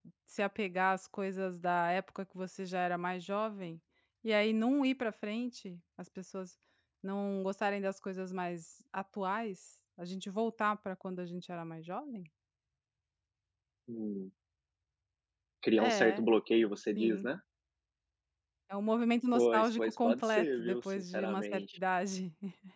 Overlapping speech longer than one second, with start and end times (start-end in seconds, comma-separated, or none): 19.3-21.8